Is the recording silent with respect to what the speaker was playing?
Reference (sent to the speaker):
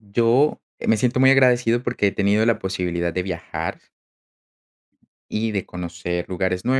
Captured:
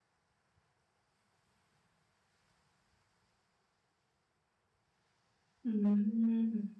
Yes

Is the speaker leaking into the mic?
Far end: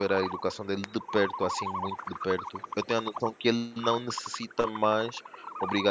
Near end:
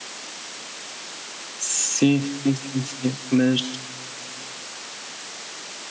No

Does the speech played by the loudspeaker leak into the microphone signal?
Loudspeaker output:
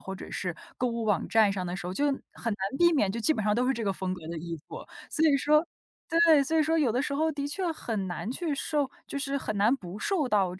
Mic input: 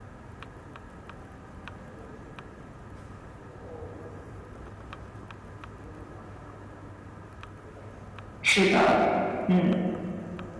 No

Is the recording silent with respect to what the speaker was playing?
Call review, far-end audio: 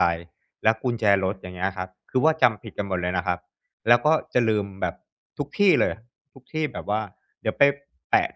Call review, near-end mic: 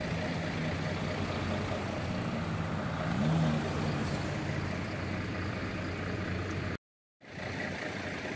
Yes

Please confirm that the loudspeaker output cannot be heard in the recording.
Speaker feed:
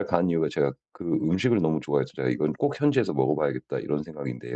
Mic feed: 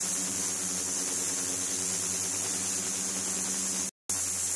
Yes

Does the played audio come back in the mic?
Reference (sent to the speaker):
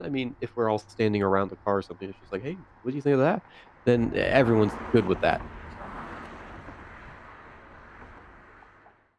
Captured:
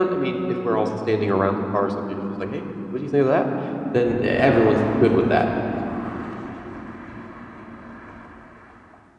Yes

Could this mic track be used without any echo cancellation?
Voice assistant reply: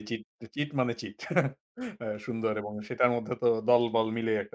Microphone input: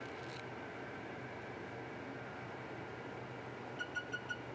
Yes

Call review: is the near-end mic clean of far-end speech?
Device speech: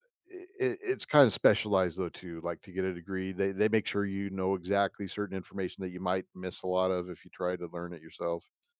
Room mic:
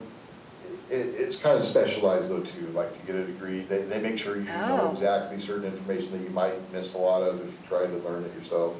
No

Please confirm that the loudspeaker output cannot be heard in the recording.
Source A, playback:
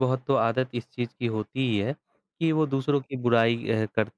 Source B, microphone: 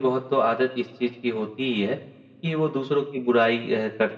No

